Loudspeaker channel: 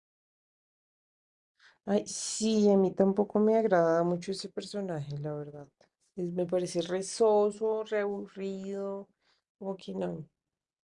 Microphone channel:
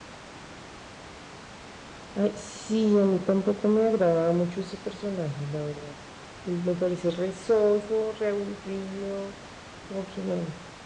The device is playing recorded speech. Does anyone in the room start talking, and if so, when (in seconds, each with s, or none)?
none